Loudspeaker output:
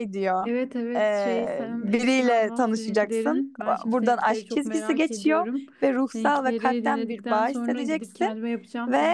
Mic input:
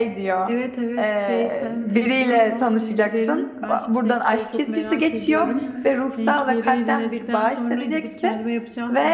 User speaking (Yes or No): Yes